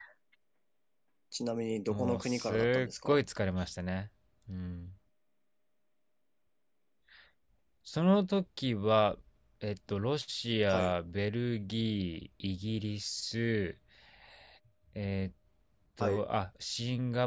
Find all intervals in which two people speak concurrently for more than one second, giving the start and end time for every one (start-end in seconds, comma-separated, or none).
1.9-3.2